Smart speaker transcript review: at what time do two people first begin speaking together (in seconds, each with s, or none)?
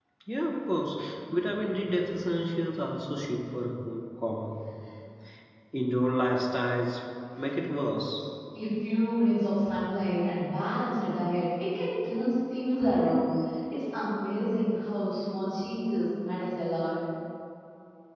none